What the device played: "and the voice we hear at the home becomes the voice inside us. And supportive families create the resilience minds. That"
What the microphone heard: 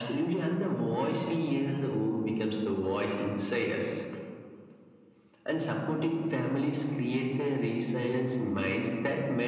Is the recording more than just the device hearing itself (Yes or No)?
No